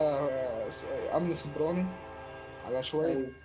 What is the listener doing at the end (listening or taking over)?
listening